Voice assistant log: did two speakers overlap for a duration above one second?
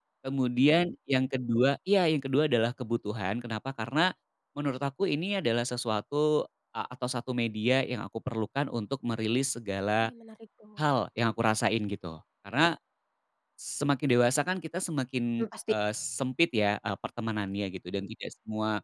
No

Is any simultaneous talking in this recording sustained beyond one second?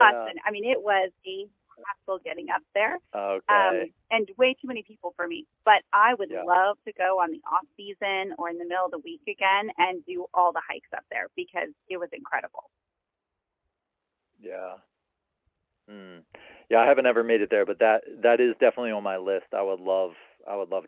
No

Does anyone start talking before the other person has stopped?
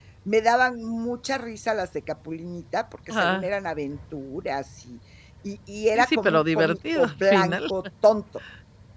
Yes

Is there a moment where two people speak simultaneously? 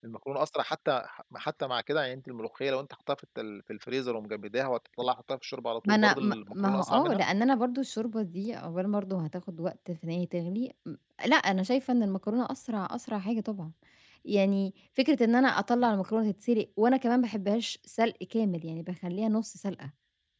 Yes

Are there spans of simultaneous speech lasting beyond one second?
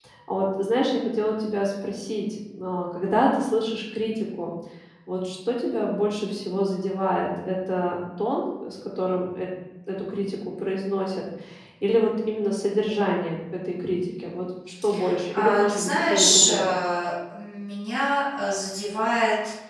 Yes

